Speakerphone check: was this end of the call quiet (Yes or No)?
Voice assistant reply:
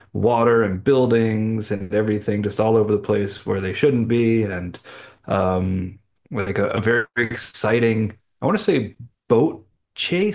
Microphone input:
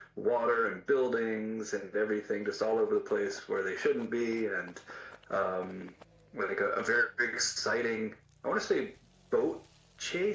Yes